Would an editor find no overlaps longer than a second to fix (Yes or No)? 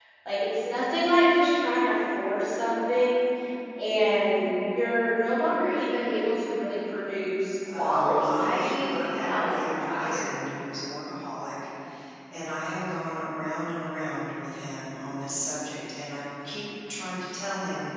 No